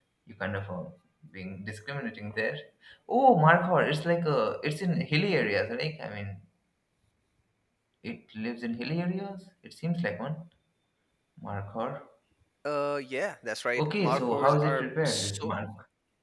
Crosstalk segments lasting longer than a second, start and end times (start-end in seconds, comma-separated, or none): 13.8-15.5